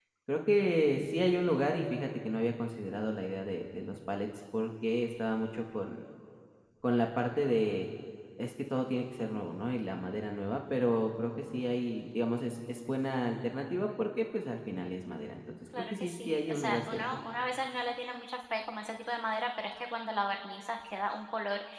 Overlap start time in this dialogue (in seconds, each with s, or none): 15.7 s